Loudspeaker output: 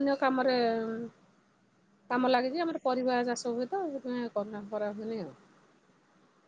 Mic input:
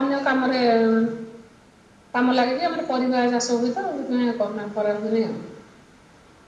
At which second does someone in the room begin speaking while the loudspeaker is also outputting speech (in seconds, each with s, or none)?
none